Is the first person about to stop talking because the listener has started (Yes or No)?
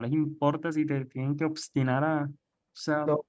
No